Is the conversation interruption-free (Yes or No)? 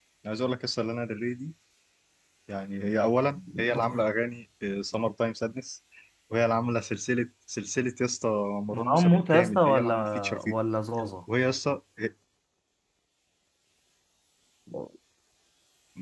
No